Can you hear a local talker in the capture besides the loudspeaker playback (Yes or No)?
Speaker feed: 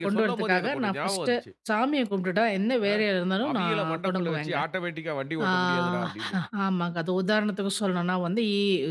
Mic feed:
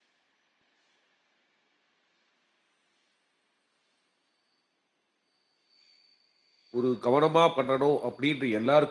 Yes